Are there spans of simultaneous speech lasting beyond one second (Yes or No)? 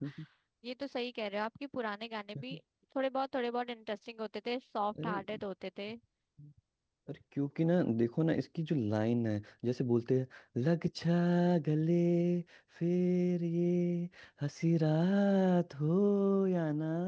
No